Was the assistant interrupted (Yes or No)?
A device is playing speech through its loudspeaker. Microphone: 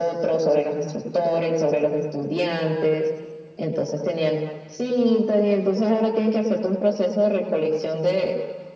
No